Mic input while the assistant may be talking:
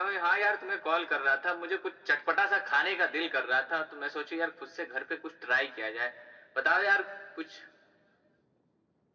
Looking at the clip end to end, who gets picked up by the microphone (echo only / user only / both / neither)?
echo only